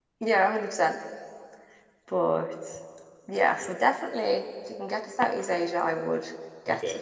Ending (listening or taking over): taking over